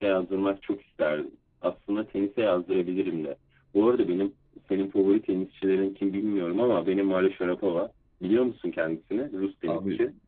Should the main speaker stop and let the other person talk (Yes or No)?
Yes